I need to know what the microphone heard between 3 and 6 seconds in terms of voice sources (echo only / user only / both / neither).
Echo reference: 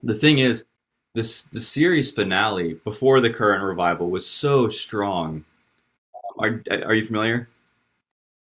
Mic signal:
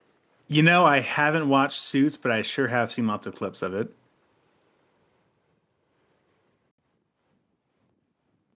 user only